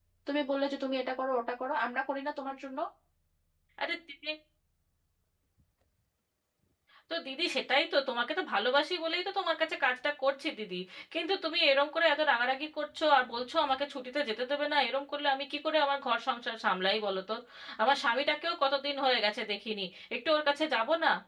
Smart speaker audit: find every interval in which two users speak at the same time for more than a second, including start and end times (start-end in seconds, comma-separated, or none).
none